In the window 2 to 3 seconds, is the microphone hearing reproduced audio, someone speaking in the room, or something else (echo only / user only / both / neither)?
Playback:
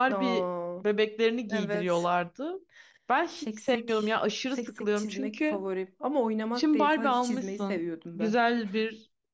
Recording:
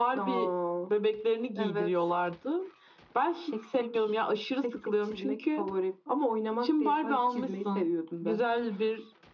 echo only